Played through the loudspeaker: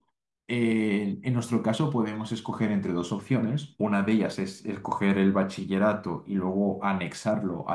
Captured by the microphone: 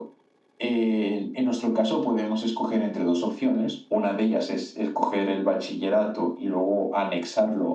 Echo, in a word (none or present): present